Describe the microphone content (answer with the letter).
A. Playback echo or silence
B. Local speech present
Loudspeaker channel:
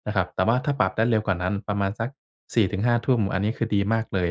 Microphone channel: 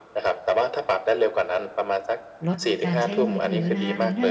B